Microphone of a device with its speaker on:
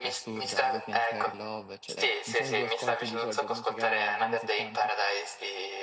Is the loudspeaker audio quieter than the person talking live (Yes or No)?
No